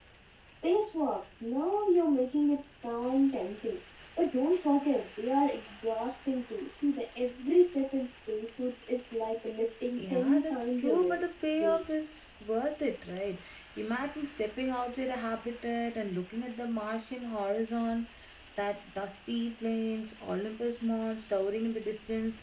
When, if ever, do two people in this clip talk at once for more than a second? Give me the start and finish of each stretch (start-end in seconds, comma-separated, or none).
10.0-11.2